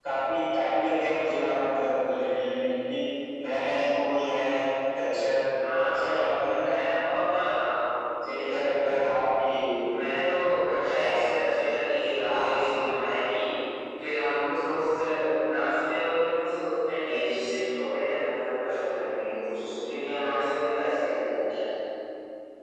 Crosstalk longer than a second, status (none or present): present